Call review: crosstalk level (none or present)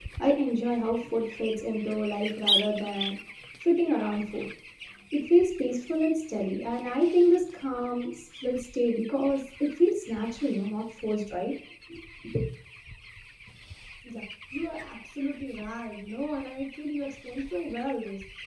none